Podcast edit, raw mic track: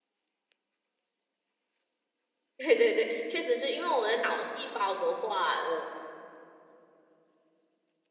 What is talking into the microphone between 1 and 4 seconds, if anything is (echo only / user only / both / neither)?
user only